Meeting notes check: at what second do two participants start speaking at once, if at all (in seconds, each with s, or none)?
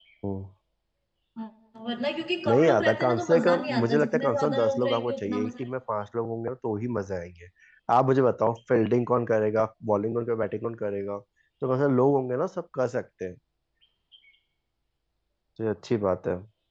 2.5 s